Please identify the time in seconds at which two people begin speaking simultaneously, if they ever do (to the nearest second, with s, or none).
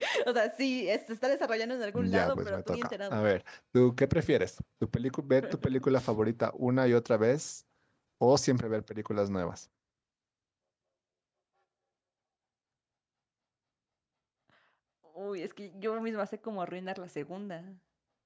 2 s